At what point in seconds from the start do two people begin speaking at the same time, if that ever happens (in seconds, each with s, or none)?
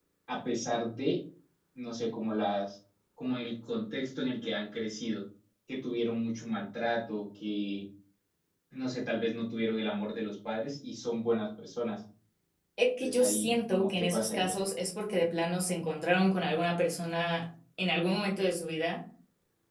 13.0 s